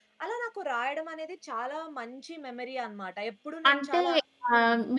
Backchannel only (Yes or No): No